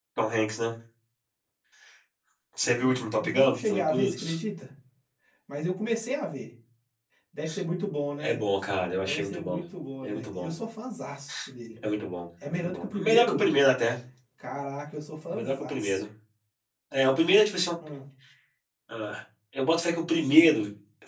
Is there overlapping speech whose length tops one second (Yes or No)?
Yes